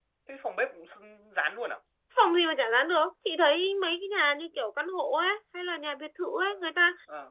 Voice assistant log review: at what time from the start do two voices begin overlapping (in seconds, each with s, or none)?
none